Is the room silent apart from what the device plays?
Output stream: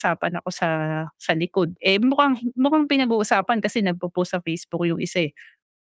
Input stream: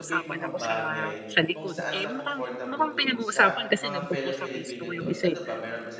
No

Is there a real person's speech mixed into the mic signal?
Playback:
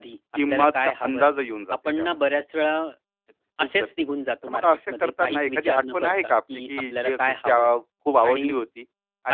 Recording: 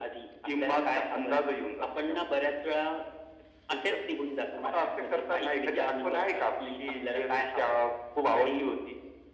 No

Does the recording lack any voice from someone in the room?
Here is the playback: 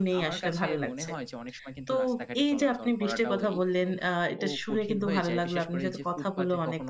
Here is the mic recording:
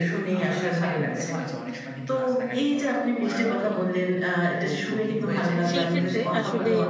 No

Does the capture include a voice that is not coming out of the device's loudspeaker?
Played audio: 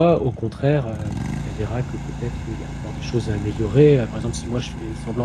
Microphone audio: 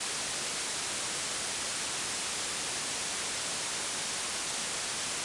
No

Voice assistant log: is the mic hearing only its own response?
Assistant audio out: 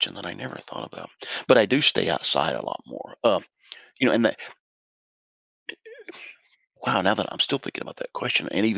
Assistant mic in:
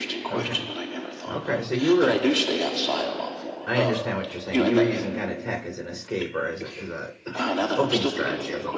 No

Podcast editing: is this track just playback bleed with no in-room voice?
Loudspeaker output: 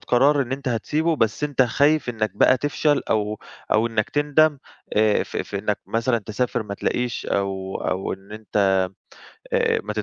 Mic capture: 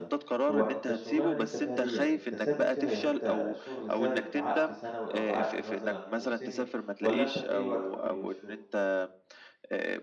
No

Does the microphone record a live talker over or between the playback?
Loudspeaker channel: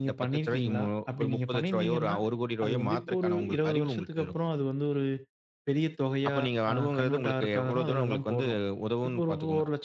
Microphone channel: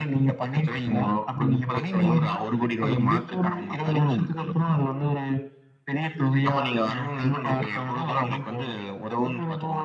No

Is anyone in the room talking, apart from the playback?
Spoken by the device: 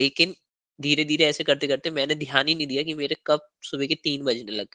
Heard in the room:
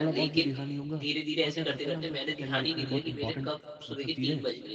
Yes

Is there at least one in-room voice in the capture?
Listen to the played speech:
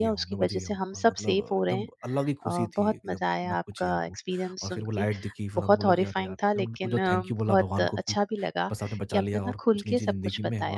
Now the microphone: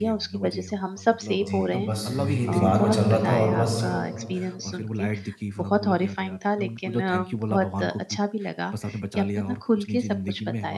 Yes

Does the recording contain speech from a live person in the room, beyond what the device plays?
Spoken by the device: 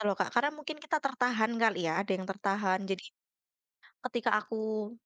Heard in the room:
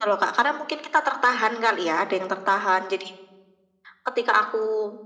No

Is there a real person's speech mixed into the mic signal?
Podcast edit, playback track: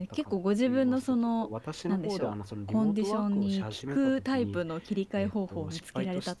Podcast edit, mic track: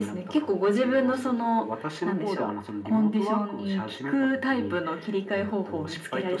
No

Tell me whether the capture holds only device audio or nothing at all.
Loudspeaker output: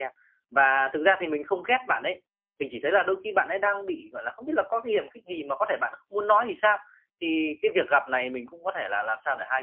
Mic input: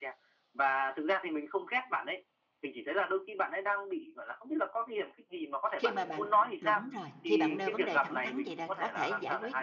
No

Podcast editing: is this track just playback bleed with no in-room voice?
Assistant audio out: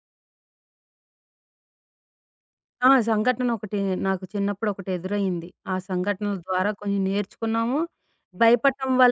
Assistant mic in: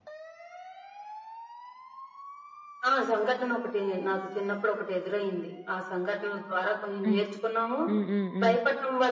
No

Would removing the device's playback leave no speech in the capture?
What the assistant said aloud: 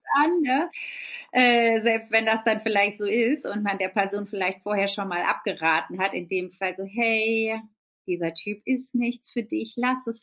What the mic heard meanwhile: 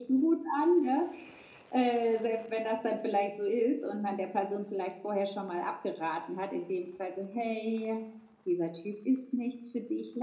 Yes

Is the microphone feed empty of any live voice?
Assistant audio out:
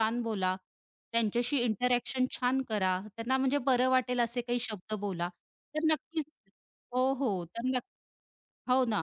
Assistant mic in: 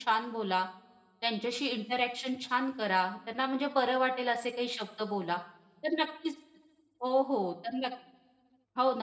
Yes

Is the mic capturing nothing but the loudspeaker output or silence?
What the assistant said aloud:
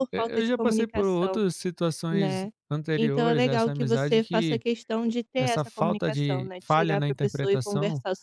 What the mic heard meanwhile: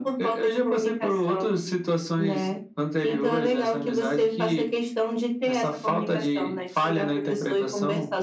Yes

